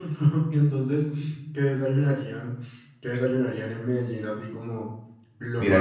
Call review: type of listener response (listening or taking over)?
taking over